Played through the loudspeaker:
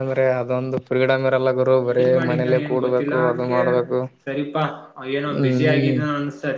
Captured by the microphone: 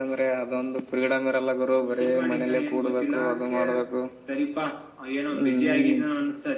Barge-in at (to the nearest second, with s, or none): none